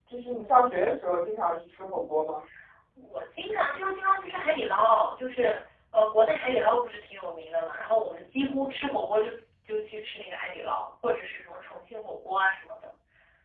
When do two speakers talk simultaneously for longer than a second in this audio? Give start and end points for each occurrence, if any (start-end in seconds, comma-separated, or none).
none